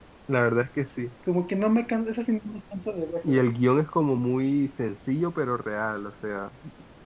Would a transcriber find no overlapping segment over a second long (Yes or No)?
Yes